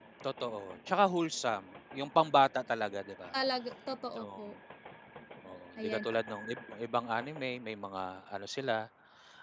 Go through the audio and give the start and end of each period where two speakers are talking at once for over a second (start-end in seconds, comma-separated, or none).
none